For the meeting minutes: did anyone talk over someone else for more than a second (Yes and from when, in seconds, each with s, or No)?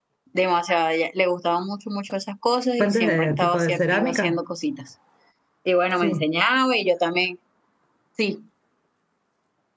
Yes, from 2.8 s